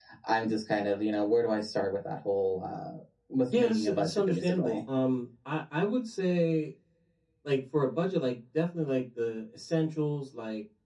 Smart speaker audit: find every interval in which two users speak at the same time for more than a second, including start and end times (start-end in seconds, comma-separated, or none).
3.6-4.8